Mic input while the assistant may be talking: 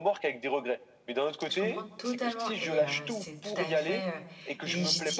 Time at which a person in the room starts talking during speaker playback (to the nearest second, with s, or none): 1 s